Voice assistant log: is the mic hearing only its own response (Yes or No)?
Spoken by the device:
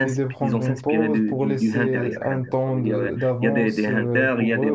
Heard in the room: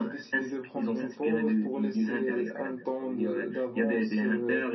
Yes